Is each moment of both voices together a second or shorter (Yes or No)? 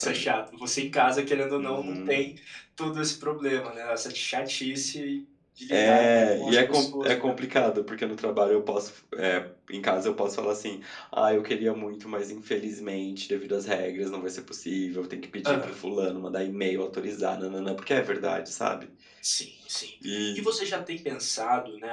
No